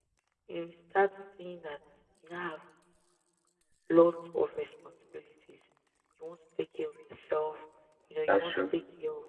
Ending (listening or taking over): listening